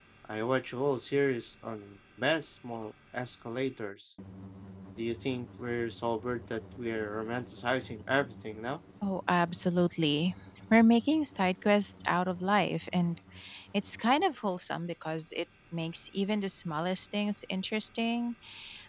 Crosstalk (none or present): none